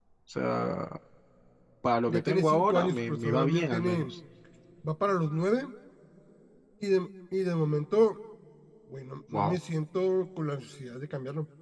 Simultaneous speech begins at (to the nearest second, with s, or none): 2 s